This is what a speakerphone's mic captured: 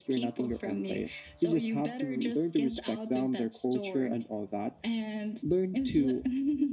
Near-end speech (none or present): none